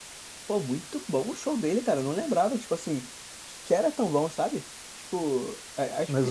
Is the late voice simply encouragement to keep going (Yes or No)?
No